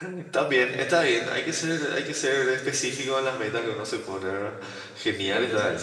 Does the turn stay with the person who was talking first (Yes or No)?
No